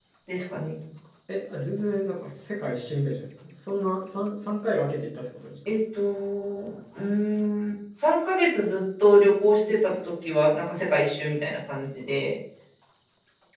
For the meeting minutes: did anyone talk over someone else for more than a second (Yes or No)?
No